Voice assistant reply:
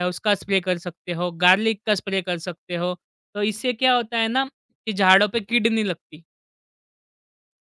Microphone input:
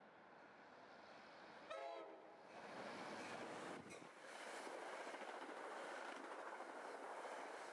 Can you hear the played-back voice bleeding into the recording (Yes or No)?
No